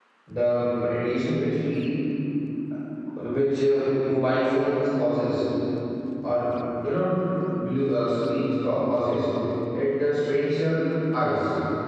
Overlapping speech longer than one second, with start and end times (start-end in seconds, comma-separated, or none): none